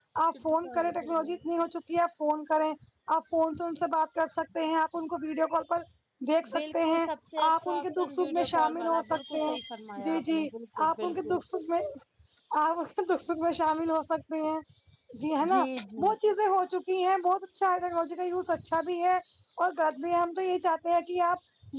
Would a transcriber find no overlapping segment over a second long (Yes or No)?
No